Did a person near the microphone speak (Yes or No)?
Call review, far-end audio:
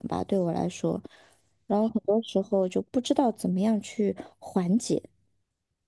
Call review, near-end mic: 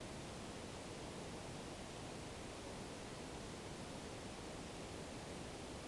No